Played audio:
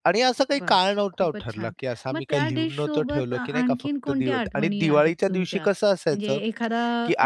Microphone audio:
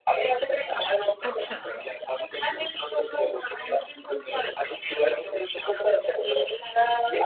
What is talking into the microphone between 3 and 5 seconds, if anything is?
echo only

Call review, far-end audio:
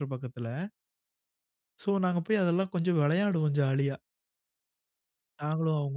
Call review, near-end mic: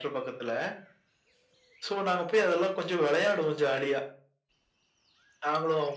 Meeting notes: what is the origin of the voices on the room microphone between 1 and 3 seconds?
echo only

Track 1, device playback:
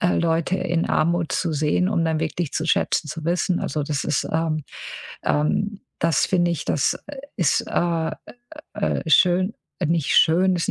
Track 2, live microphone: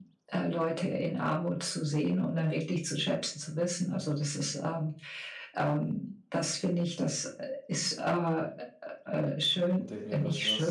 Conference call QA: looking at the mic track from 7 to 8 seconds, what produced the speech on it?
echo only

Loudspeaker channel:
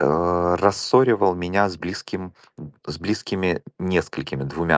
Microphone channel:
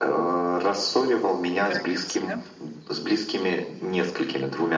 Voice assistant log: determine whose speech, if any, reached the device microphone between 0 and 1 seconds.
echo only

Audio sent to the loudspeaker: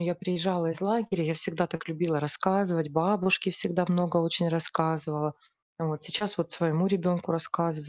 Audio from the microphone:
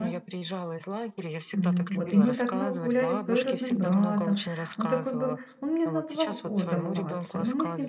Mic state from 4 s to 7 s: both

